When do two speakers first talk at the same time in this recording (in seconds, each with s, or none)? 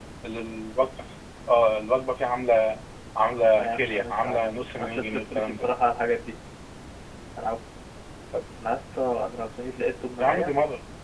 3.4 s